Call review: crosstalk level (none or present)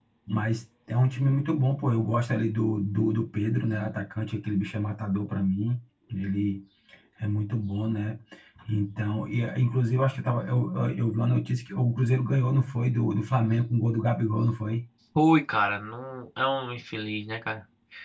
none